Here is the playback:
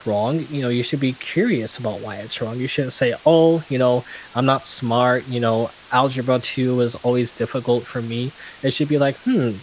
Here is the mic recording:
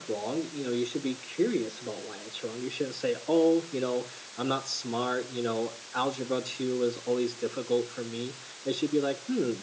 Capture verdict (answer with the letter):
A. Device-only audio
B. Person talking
A